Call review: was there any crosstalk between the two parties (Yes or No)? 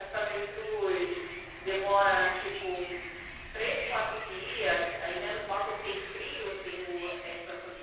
No